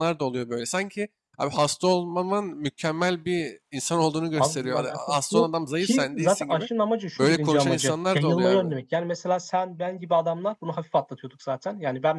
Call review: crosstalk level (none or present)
present